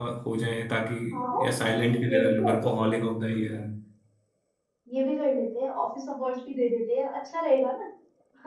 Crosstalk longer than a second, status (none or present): present